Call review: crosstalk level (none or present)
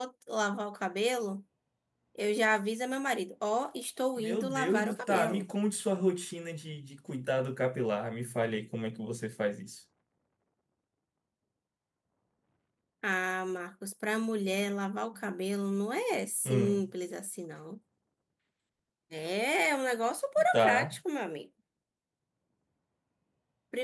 present